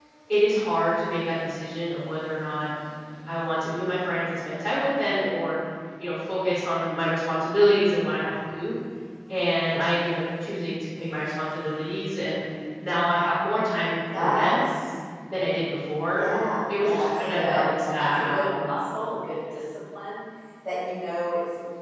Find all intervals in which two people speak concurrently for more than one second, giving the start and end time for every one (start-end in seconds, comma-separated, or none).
16.8-18.6